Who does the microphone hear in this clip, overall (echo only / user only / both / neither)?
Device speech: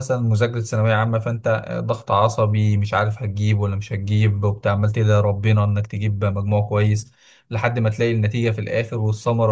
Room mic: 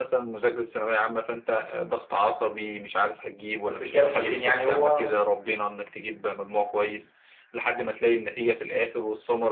both